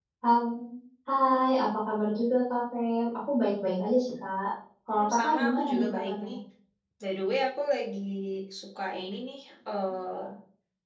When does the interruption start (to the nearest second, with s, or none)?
5 s